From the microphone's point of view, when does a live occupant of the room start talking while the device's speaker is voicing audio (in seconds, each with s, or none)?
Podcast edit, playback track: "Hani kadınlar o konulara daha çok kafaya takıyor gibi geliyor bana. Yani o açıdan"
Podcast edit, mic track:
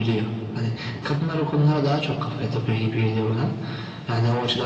none